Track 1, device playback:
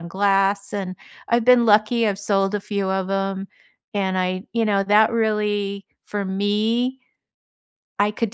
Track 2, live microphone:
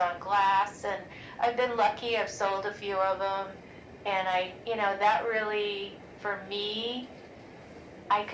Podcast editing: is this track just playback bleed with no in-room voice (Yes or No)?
Yes